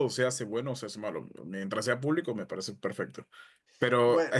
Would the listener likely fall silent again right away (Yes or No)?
Yes